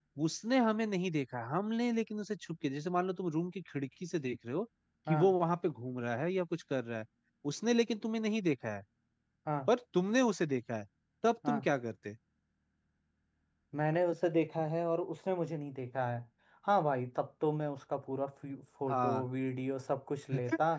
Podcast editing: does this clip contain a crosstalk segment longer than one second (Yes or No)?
No